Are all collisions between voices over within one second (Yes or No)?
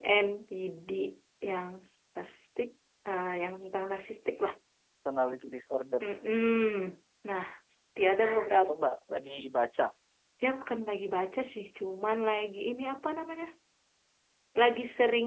Yes